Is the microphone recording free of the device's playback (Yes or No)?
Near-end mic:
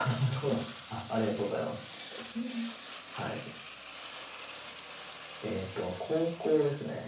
No